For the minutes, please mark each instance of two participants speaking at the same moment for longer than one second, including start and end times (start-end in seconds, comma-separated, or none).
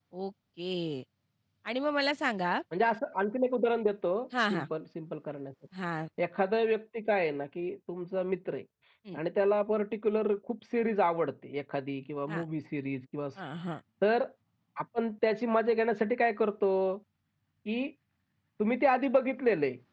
none